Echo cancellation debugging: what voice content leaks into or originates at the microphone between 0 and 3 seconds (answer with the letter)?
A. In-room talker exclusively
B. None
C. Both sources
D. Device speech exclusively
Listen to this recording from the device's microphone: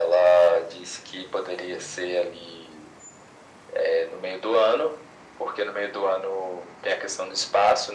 D